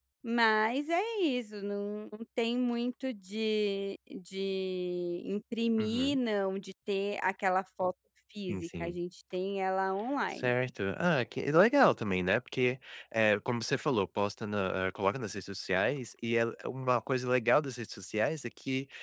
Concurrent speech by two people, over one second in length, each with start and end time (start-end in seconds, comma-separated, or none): none